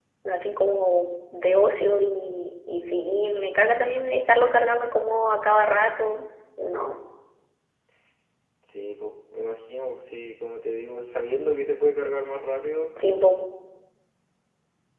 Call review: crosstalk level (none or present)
none